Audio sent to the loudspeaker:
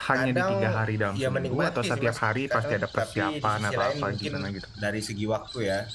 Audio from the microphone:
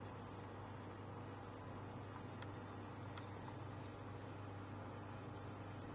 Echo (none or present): none